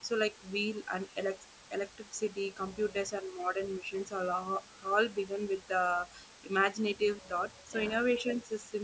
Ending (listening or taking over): listening